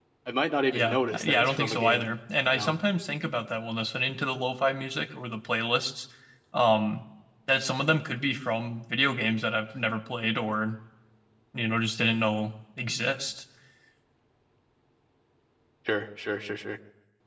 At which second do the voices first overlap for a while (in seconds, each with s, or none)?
0.7 s